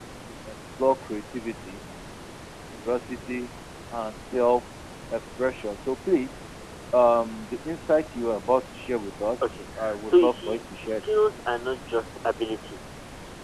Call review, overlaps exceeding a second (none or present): present